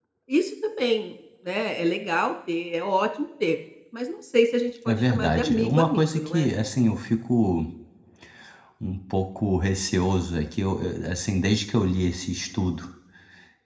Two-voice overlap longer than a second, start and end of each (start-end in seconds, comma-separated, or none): 4.9-6.5